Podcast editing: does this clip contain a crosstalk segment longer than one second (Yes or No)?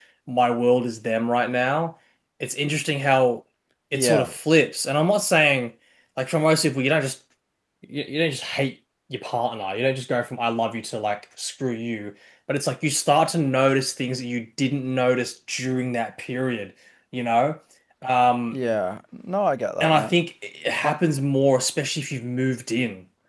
No